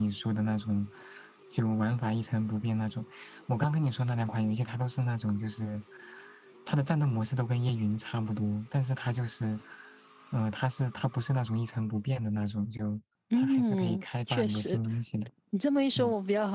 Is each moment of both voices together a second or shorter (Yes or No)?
No